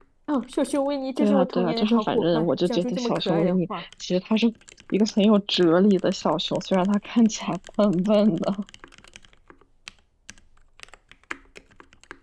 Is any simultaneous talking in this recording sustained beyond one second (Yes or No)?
Yes